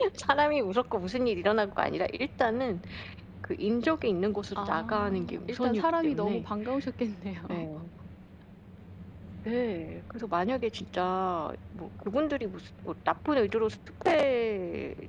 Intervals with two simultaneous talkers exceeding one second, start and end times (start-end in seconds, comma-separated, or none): 4.5-6.5